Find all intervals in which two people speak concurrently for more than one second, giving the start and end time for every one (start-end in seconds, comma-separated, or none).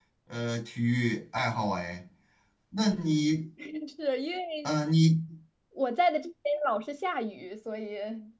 none